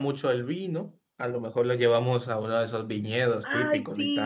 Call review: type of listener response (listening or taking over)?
taking over